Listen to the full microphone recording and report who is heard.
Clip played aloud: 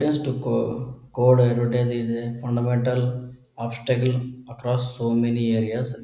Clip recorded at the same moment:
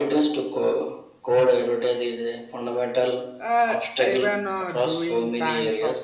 both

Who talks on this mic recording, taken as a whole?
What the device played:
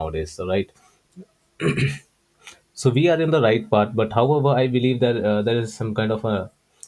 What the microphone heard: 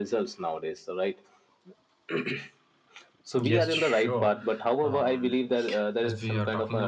both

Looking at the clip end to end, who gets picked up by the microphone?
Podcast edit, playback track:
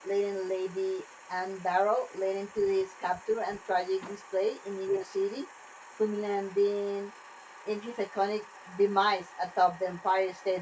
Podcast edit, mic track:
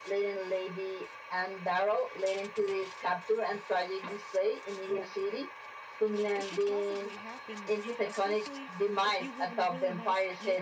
both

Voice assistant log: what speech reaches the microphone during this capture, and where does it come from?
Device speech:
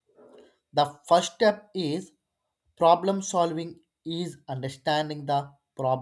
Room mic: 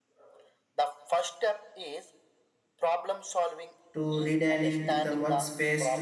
both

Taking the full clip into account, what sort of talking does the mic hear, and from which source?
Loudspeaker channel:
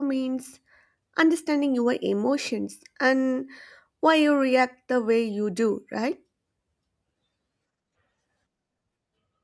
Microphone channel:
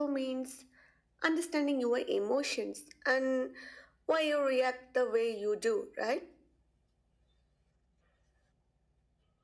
echo only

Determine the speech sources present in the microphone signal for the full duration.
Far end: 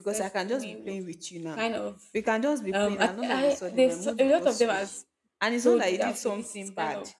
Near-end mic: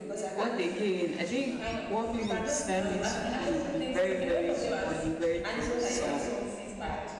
both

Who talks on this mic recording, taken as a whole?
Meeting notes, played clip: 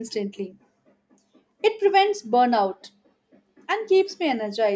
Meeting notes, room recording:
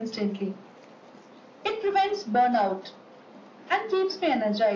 echo only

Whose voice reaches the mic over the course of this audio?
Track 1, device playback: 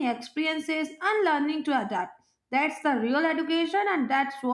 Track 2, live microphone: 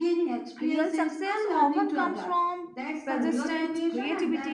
both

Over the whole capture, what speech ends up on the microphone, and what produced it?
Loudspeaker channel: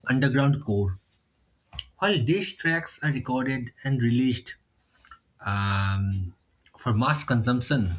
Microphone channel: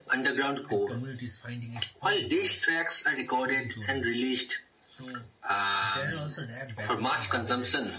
both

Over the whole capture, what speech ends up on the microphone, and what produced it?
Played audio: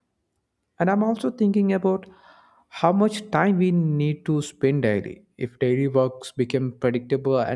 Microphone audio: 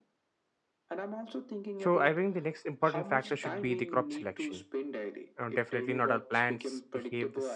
both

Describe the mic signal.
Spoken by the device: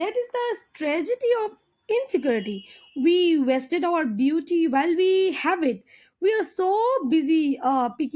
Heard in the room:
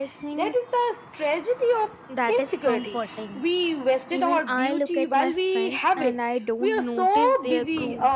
both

